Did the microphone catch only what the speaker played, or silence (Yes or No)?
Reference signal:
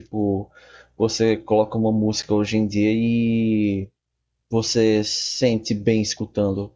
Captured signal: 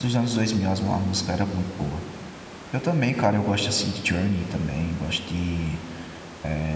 No